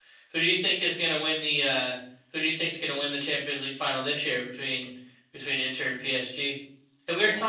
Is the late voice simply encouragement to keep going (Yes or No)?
No